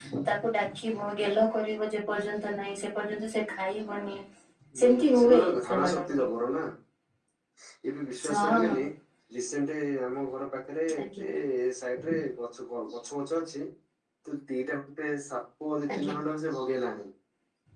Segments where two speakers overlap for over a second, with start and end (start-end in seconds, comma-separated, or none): 4.8-6.2